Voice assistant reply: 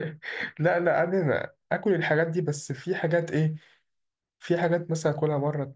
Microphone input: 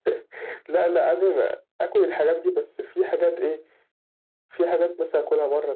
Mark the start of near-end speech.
none

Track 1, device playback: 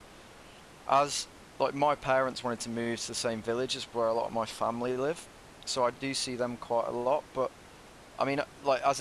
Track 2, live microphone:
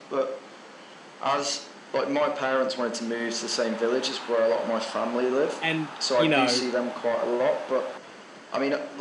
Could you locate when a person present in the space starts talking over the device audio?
6 s

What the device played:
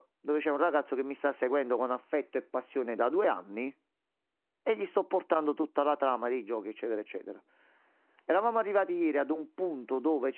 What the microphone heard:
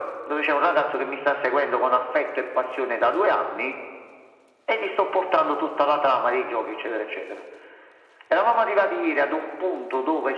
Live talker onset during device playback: none

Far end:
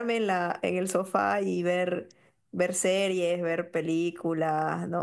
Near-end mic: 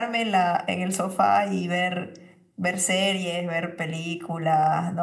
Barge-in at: none

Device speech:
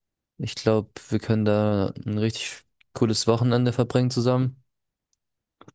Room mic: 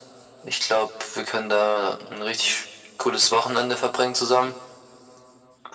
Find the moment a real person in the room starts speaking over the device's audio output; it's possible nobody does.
none

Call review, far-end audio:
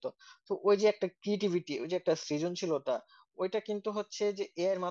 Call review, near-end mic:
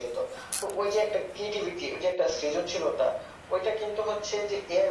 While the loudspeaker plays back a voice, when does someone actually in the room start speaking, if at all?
none

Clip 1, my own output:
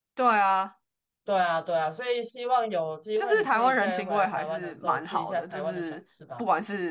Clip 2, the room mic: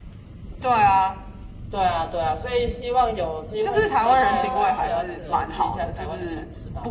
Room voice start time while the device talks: 4 s

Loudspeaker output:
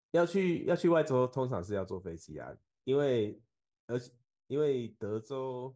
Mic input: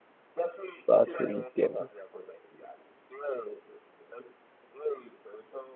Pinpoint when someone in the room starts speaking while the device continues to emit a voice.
1 s

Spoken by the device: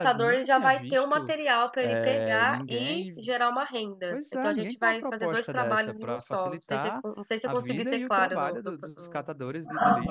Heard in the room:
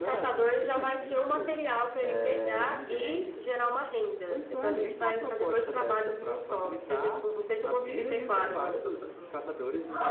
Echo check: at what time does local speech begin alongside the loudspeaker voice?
none

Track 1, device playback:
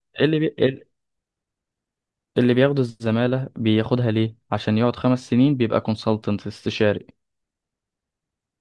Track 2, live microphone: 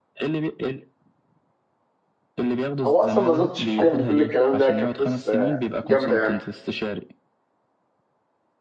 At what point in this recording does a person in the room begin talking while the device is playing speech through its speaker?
3 s

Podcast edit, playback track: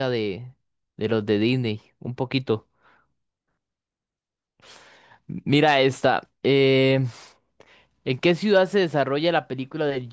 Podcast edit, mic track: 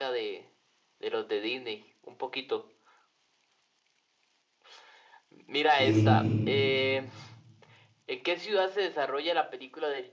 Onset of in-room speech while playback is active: 6 s

